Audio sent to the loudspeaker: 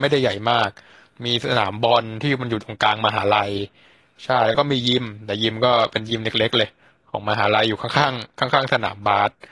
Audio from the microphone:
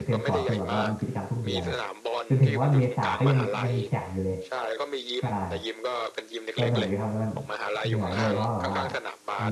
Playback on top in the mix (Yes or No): No